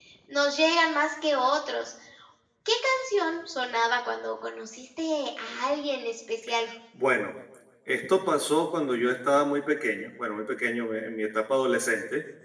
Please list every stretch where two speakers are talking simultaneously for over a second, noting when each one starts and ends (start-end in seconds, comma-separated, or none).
none